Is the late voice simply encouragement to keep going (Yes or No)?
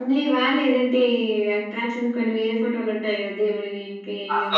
No